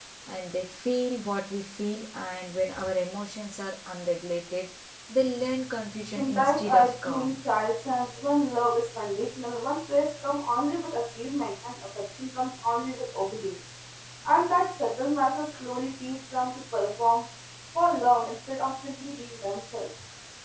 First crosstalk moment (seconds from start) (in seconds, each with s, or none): 6.2 s